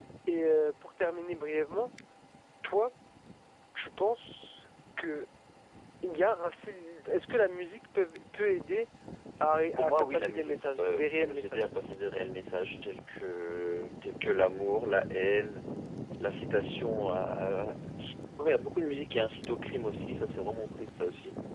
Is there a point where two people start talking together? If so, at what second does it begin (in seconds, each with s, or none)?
9.8 s